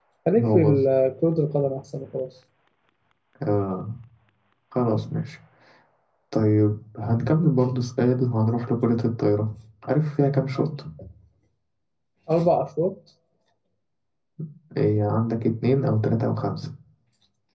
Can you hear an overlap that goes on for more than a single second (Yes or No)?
No